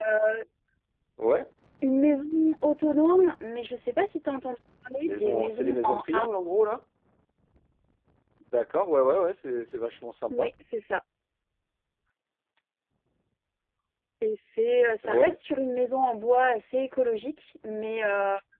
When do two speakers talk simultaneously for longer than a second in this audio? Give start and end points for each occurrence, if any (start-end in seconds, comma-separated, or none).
5.0-6.3